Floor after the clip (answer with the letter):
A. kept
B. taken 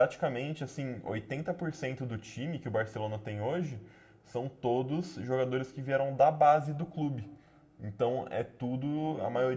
A